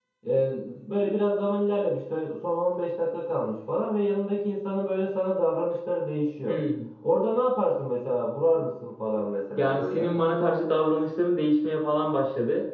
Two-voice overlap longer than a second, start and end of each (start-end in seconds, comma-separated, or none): none